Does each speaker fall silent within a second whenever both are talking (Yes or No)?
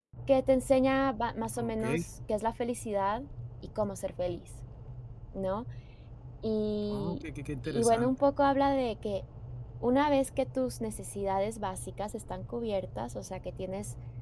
Yes